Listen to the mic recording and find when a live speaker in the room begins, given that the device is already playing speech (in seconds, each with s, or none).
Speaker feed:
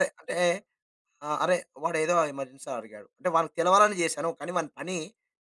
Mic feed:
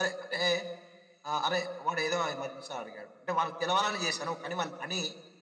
none